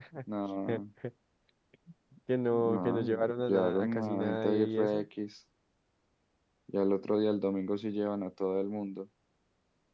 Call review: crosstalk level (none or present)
present